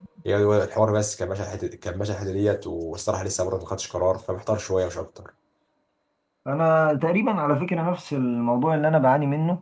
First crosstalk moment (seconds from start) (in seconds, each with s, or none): none